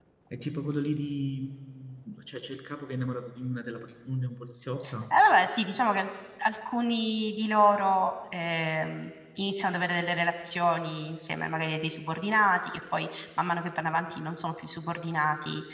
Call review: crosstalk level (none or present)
none